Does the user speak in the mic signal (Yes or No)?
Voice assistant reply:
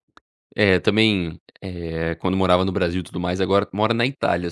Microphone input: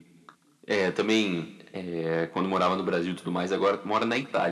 No